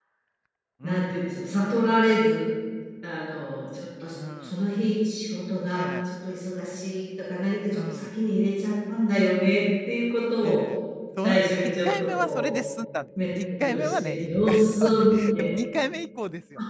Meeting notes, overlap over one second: present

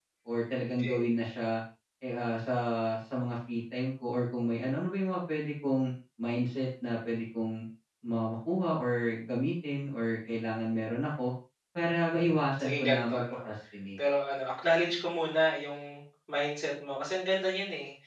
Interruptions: present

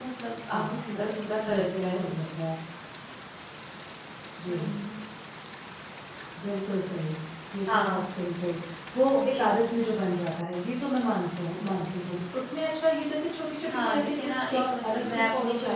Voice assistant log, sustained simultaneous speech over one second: present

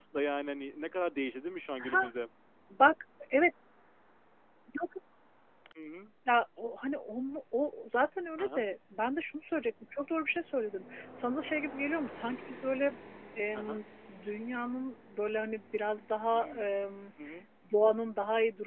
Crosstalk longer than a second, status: none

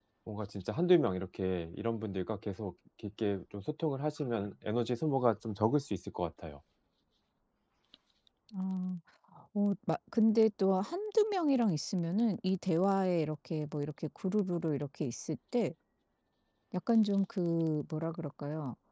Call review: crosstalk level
none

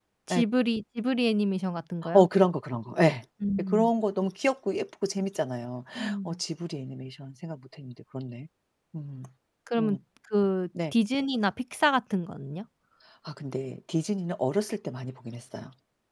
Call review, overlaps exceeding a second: none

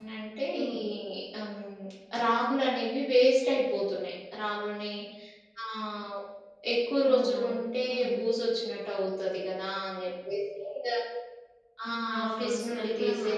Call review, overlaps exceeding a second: present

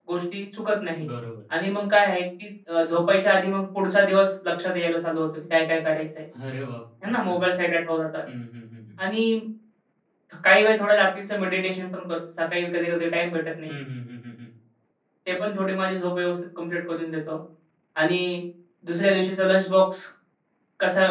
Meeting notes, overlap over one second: none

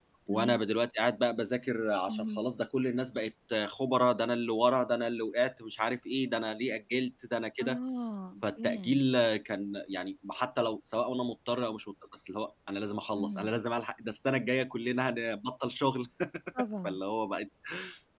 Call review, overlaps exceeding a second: none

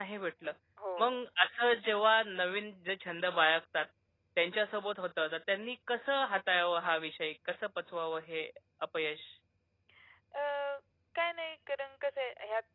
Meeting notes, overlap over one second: none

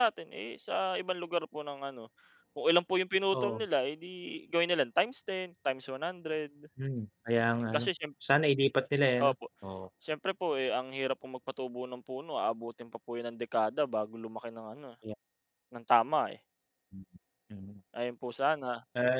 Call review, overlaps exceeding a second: none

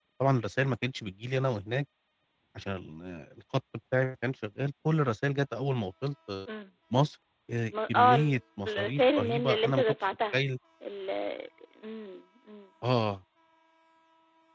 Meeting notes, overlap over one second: present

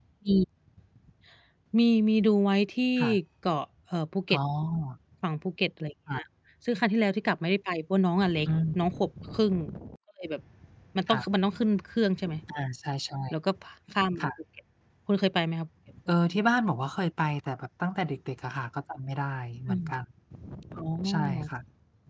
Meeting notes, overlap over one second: none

